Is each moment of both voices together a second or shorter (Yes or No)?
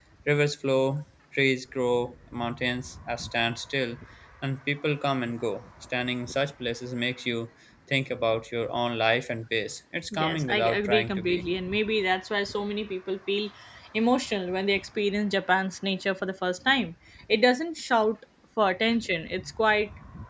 No